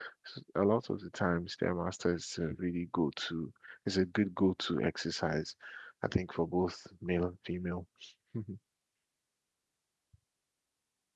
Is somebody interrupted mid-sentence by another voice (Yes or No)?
No